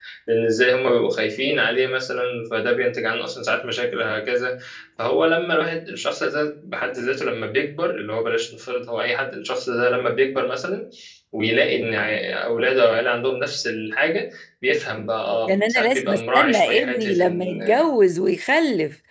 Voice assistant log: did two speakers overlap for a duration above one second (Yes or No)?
Yes